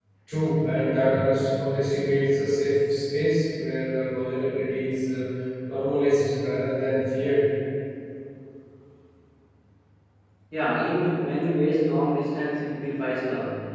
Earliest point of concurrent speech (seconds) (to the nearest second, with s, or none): none